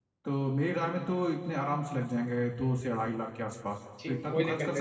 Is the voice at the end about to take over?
Yes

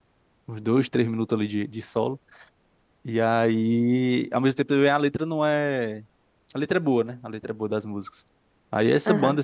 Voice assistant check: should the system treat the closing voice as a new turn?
No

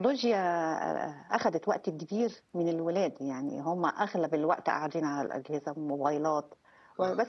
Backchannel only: Yes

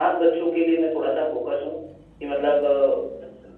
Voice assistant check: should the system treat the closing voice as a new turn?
No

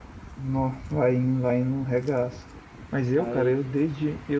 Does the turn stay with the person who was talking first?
Yes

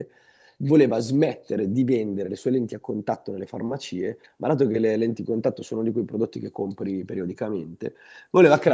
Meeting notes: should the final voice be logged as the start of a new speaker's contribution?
No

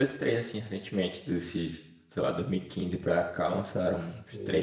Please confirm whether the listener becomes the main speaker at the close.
Yes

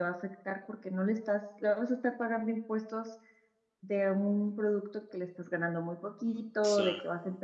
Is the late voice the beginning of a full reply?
No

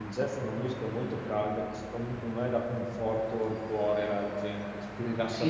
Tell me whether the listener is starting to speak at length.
Yes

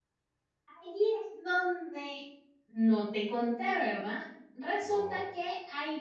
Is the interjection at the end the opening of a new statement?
No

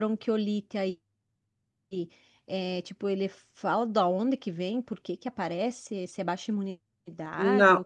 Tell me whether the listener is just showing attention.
No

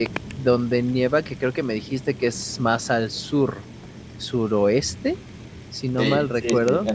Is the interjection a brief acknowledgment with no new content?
No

